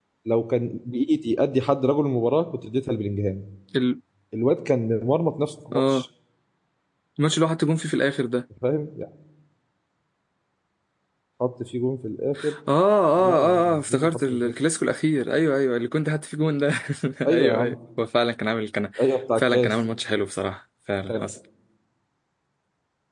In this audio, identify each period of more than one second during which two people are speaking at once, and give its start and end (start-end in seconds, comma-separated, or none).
13.2-14.5